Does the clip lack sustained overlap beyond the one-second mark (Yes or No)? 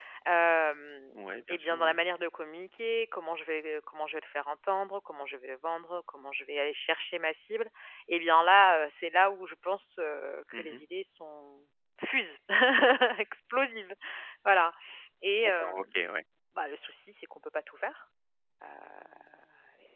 Yes